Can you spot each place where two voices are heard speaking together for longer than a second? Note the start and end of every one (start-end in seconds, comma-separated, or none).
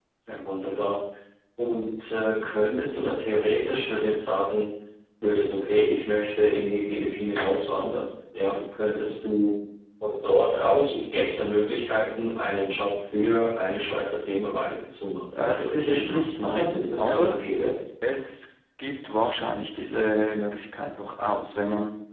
15.4-17.4